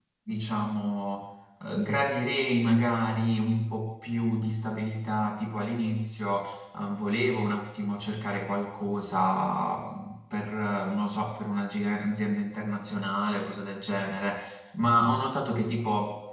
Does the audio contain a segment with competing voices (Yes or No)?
No